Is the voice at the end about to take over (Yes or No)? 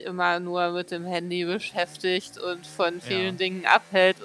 No